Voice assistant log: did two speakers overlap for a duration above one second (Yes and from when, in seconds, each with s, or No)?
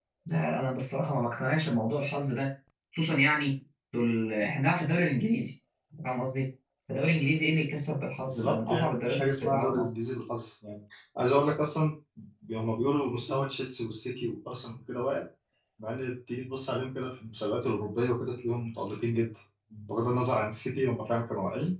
Yes, from 8.2 s